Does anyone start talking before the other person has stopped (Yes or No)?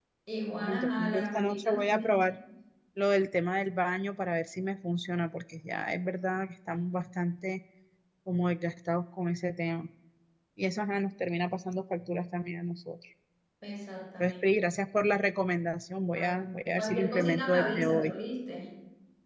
Yes